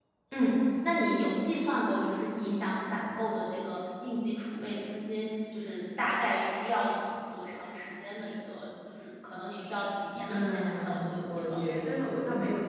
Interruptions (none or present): present